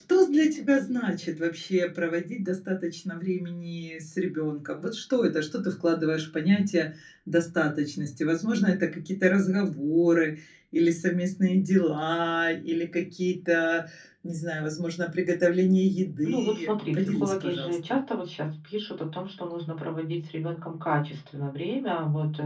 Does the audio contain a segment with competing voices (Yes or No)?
Yes